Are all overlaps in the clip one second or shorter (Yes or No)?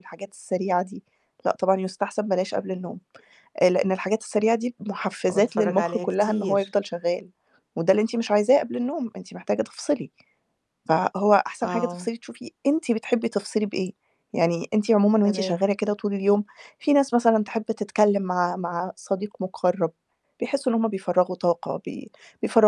No